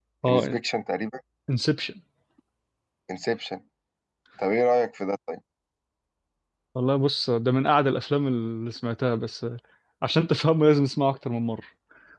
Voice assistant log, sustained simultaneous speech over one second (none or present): none